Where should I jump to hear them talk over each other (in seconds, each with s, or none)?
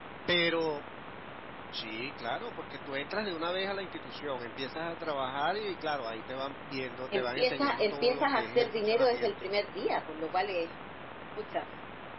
7.1 s